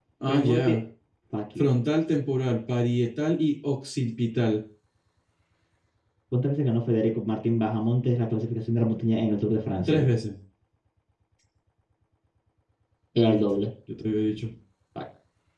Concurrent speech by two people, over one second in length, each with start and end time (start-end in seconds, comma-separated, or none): none